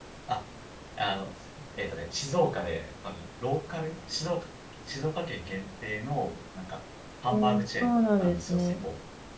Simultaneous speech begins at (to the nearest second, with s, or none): 7 s